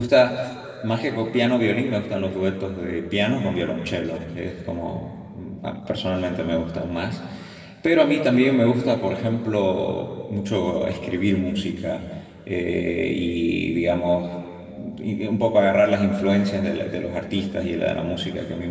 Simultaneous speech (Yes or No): No